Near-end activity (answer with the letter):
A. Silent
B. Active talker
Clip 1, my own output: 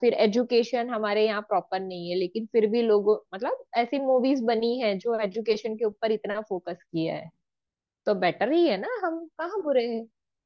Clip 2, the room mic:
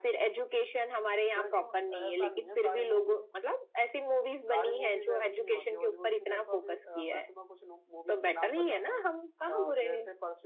B